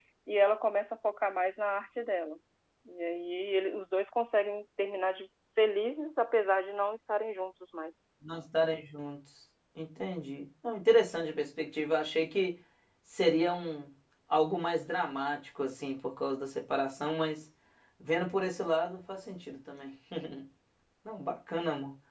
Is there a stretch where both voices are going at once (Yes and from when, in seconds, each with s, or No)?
No